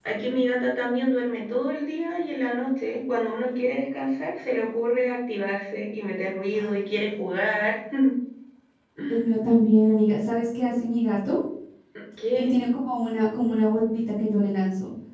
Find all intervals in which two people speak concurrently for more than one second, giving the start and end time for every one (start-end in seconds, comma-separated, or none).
none